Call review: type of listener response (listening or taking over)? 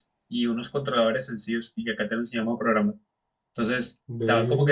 listening